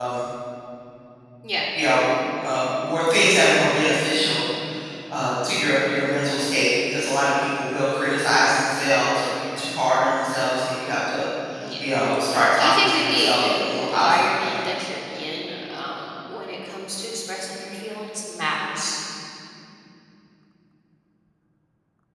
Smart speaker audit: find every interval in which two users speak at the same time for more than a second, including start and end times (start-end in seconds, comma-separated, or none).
12.6-14.6